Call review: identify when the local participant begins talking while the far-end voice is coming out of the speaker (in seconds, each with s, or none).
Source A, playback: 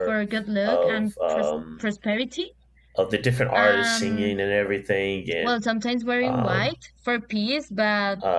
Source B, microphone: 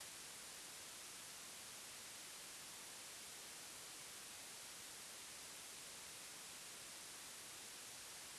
none